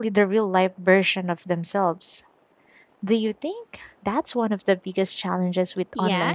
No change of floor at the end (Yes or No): No